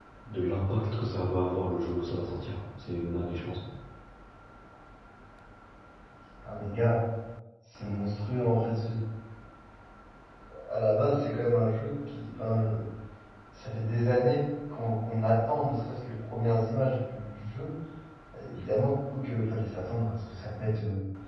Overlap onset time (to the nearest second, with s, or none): none